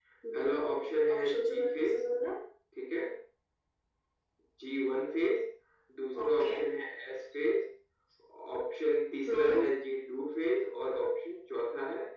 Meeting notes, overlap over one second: present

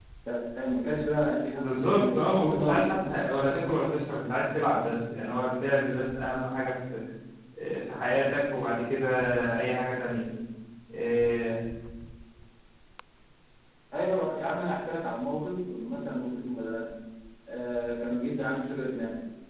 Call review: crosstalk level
present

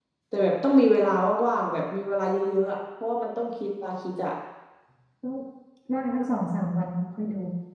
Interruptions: none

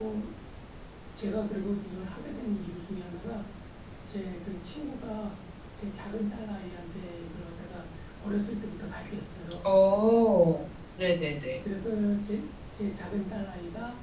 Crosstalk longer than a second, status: none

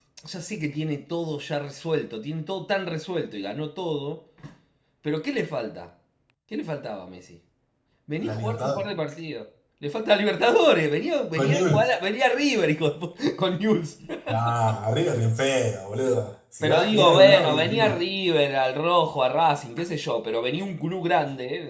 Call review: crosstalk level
present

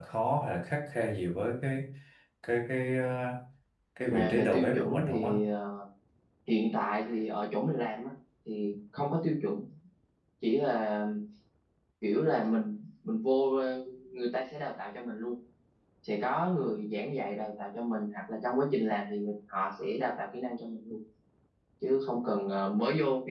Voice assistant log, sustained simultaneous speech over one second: present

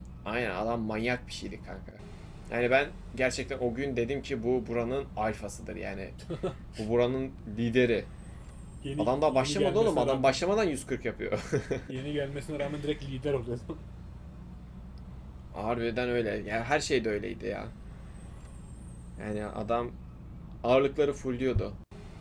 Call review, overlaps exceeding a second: present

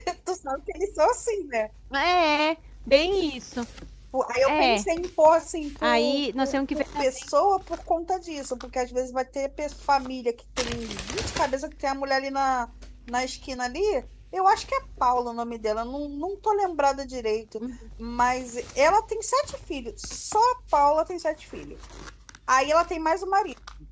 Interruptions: present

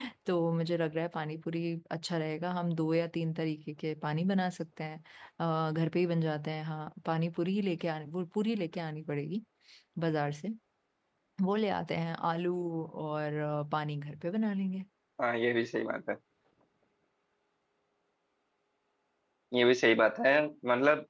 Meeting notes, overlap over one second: none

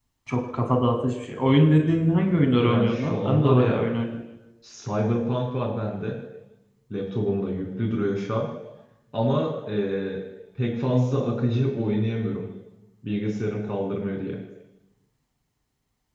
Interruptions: present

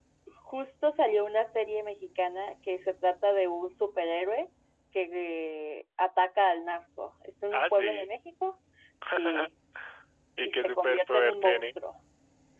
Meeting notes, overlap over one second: present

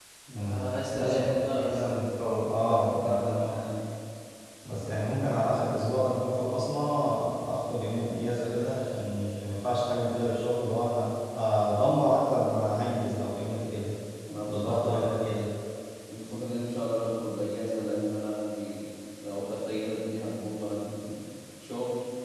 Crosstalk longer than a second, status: present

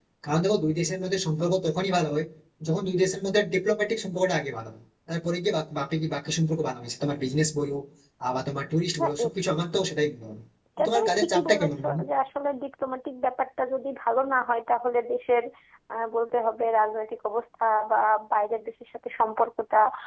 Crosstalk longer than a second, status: present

